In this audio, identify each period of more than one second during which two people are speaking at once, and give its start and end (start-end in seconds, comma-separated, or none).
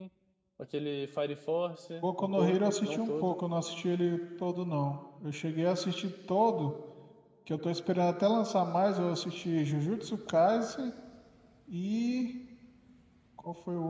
2.0-3.4